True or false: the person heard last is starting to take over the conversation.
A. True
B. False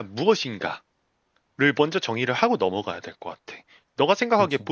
B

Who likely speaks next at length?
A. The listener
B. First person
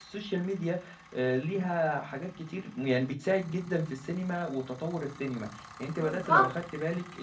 B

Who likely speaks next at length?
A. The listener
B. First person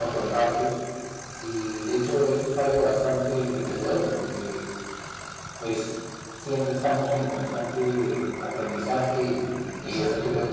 B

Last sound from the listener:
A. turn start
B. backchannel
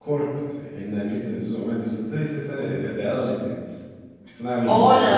A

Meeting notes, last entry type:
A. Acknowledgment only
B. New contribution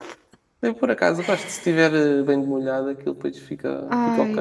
B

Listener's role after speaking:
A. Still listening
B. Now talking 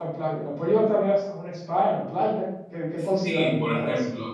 B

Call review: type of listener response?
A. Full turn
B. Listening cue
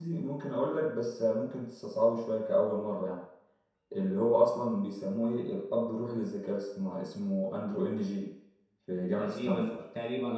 A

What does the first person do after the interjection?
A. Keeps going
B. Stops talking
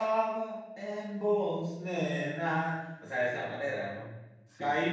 A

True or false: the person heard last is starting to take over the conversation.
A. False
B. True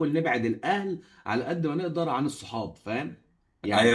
B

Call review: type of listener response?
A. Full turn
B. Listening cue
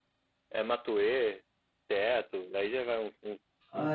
A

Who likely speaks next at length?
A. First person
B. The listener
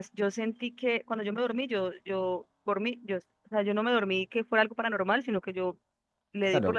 B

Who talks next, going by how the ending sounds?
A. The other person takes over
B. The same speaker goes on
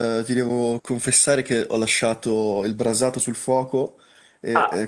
B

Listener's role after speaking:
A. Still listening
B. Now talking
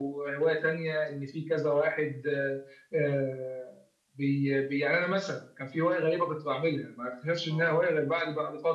A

